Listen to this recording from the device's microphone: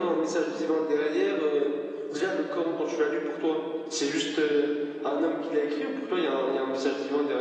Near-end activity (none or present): none